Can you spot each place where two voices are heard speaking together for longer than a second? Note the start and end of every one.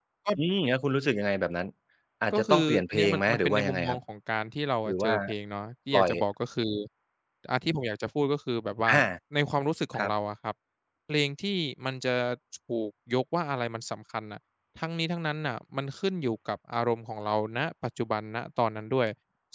2.3-4.0

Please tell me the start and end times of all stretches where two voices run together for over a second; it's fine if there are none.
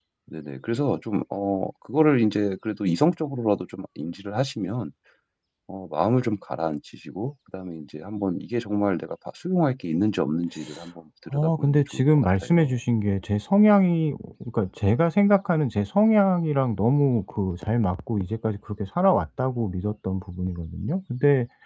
11.3-12.7

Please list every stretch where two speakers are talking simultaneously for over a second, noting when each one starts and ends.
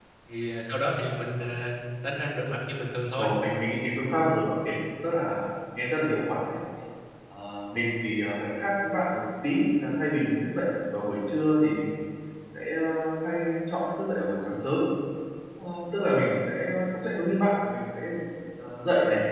none

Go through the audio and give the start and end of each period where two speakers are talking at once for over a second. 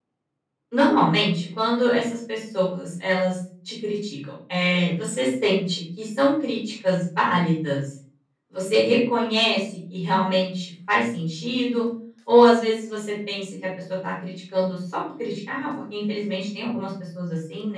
none

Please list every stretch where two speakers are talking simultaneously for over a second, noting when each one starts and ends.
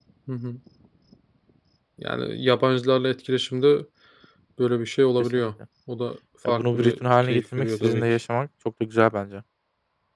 6.5-8.1

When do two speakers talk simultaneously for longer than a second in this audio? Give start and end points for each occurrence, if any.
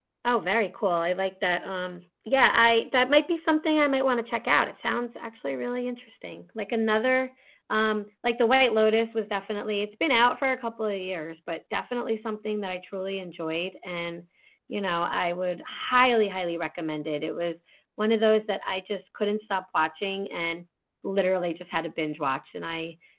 none

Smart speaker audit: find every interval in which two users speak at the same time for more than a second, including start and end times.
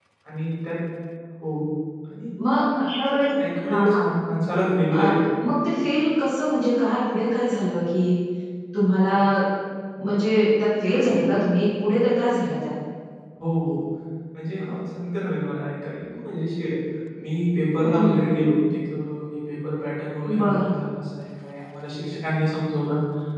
none

